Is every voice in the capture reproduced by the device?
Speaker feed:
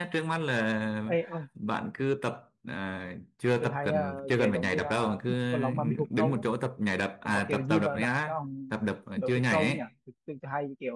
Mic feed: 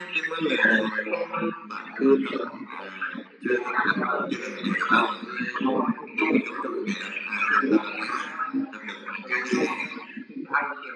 Yes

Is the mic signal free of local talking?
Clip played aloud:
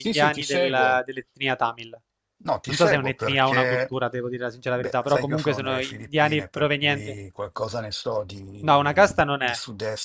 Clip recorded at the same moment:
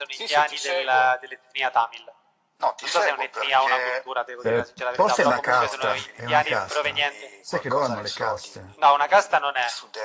No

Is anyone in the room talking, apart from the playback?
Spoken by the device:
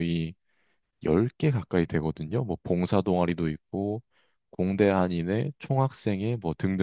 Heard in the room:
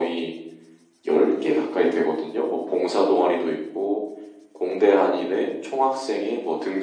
No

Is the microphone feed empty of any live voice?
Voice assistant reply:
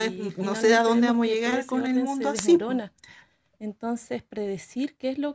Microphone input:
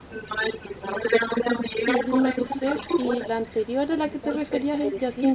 No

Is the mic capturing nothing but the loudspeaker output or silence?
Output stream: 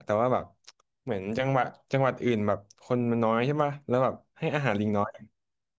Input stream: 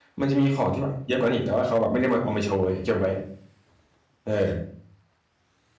No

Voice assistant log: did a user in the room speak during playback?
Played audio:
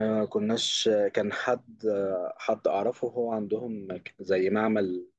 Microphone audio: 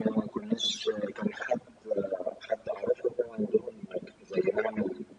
No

